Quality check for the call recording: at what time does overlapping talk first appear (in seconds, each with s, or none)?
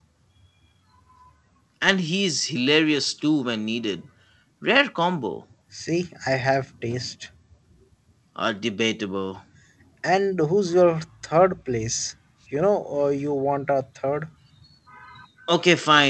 none